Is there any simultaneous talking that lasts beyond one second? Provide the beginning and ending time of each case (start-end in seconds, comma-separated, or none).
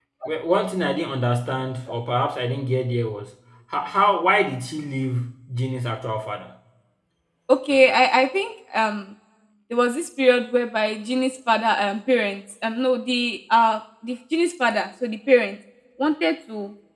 none